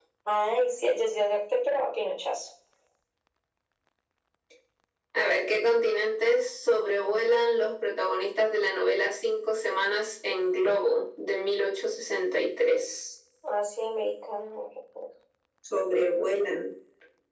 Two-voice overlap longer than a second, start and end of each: none

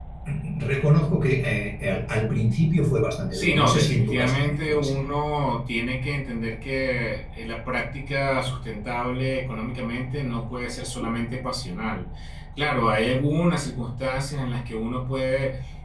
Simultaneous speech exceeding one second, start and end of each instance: 3.3-5.0

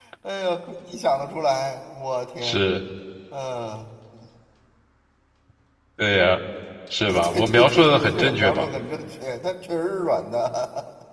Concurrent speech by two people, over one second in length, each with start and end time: 7.1-8.6

